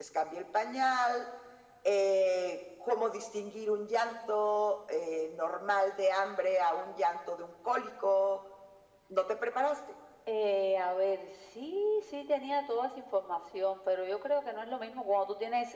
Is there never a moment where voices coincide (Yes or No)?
Yes